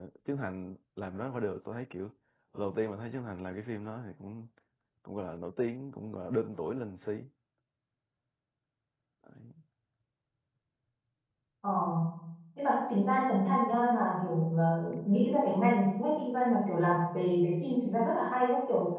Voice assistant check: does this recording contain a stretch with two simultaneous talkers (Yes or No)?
No